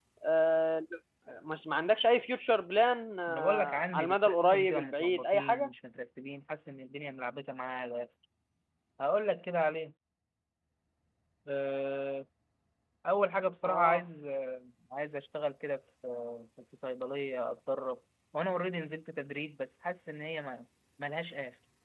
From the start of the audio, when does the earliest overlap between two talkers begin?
3.3 s

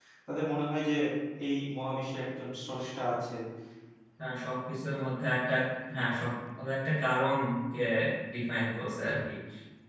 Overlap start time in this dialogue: none

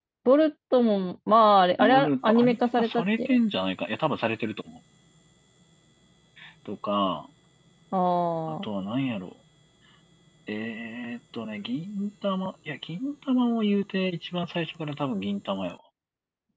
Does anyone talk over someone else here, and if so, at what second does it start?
1.8 s

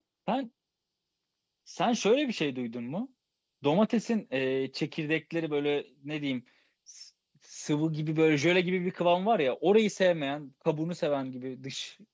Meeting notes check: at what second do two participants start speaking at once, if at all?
none

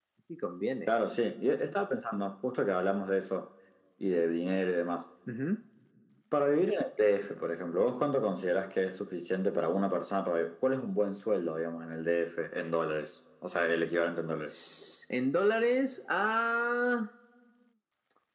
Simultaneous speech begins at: none

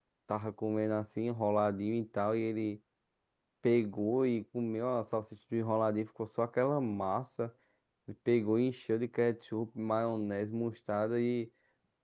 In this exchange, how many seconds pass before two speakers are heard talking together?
none

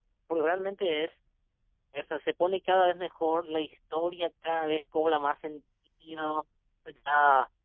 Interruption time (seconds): none

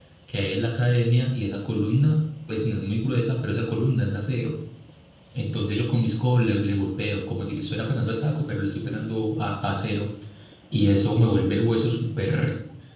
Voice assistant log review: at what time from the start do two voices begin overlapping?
none

